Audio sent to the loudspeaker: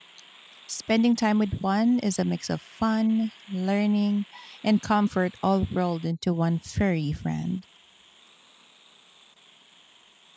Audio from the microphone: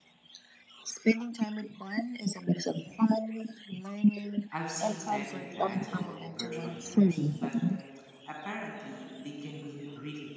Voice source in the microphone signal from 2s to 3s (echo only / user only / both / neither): echo only